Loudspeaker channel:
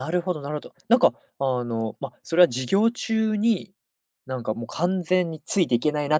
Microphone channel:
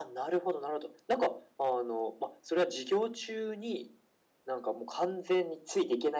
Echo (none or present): present